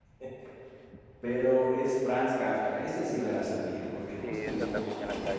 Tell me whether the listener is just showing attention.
No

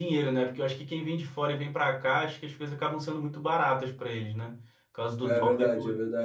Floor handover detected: Yes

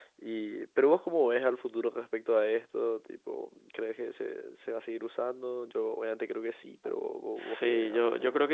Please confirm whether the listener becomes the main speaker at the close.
Yes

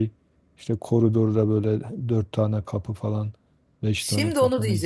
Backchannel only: No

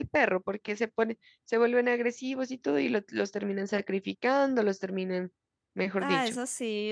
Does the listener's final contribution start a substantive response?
Yes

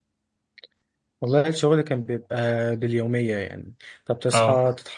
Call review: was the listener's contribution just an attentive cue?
Yes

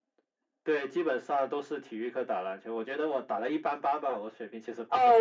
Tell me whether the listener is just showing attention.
No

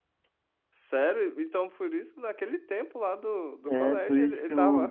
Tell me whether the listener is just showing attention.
No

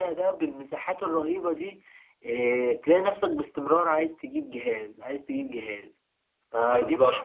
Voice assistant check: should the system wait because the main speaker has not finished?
No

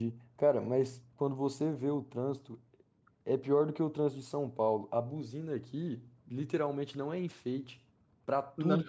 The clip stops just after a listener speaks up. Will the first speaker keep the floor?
Yes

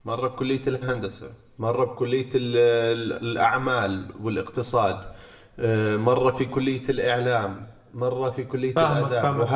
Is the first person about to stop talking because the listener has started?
Yes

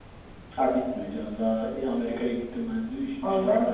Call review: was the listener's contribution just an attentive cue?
No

